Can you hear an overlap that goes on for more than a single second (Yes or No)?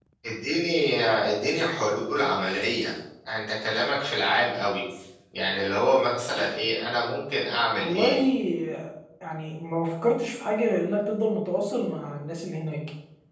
No